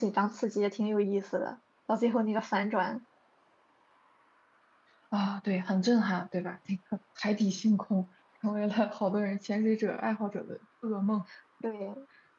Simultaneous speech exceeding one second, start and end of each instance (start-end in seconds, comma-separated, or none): none